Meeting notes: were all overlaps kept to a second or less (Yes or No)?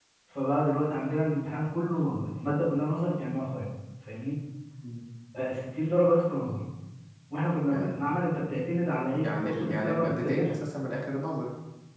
No